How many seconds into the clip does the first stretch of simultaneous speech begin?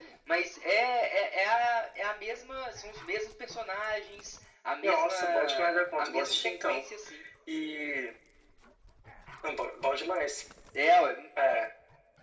4.8 s

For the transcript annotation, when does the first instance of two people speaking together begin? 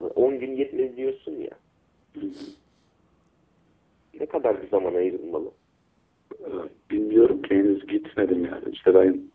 none

